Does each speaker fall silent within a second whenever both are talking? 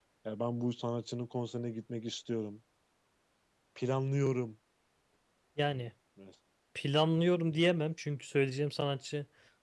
Yes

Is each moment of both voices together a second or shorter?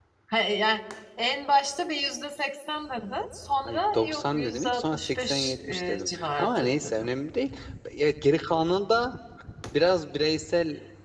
No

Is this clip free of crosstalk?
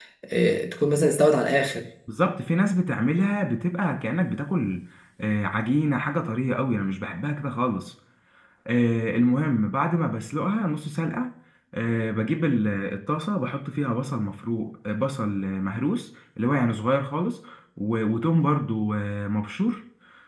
Yes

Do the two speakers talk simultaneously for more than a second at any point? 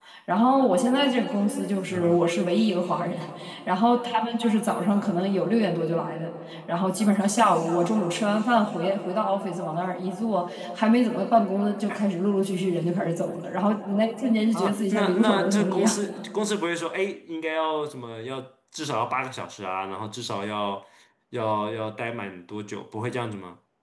Yes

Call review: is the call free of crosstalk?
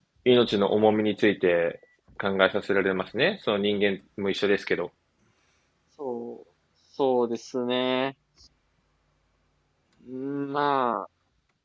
Yes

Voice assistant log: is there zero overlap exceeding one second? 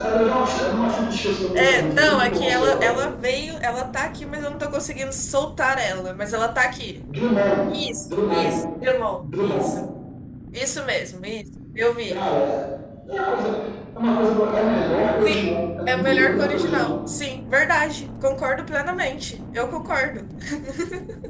No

